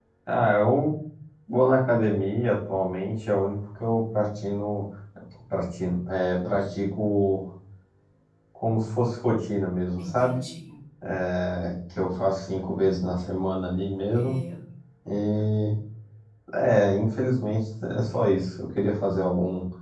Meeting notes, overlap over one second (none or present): none